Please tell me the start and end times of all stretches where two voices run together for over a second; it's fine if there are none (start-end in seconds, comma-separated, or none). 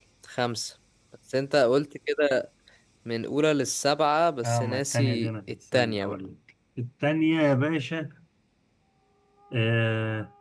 4.4-6.2